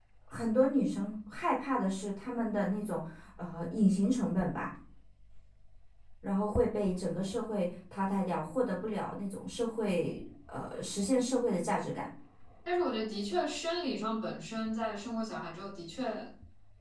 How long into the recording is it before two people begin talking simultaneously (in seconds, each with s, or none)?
none